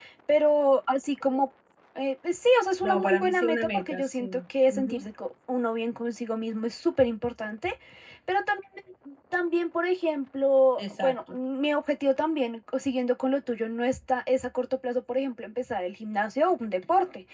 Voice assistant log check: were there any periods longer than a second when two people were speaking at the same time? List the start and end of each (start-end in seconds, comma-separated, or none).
2.8-4.3